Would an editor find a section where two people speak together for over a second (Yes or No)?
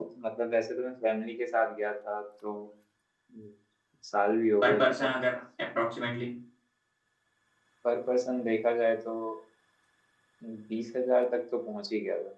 No